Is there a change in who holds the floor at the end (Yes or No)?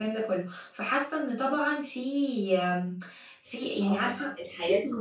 Yes